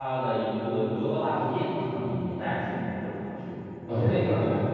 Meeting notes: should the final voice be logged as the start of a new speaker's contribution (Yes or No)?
Yes